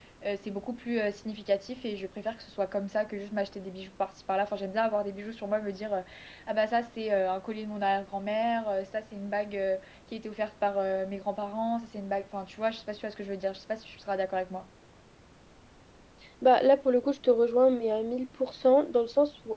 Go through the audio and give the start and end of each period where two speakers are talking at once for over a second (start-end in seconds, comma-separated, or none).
none